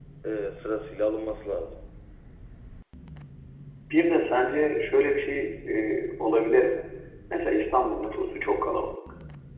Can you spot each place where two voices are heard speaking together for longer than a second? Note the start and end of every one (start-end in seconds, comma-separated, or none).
none